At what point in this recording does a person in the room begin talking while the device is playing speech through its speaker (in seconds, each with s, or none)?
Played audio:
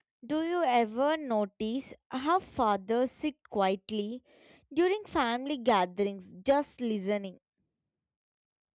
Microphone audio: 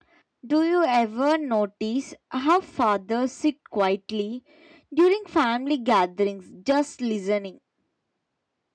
none